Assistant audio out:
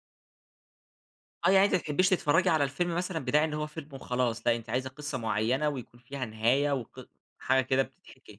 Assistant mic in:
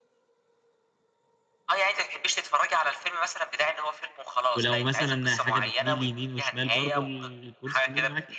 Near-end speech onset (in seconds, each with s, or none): 4.5 s